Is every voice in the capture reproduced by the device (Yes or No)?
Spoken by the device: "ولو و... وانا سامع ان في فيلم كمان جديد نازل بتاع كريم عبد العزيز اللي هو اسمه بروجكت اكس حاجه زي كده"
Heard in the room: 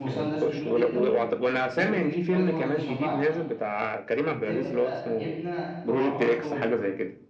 No